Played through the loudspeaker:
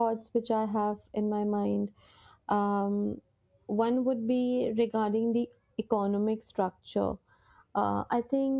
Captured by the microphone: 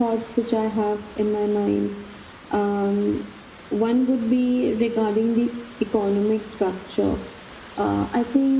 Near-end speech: none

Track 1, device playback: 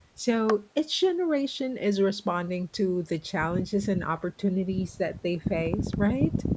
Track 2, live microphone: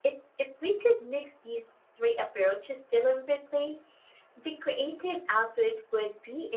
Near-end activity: present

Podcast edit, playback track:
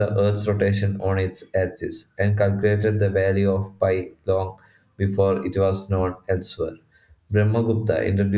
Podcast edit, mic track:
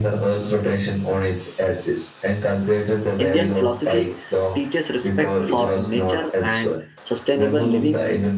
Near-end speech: present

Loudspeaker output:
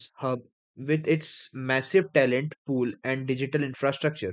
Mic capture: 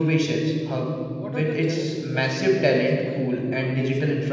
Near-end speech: present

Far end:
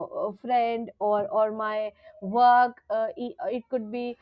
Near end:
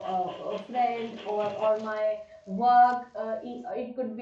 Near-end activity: none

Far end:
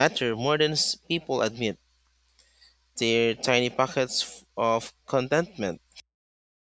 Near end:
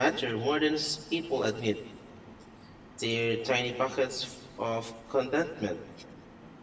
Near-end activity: none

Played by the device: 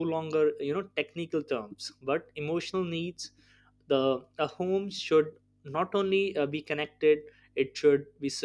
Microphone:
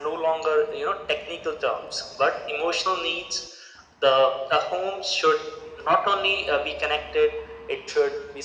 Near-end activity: none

